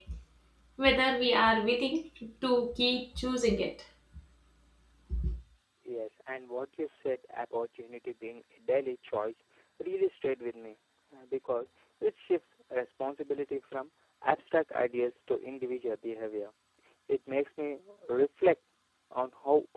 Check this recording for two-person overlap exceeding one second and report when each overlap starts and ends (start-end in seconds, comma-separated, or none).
none